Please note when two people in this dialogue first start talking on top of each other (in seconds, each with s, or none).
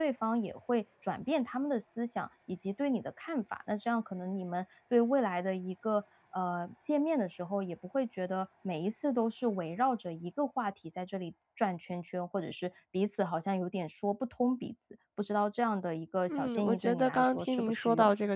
16.3 s